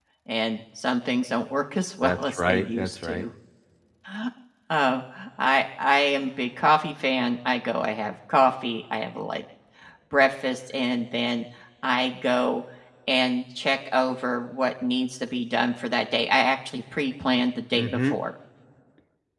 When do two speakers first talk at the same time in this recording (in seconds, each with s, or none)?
2.0 s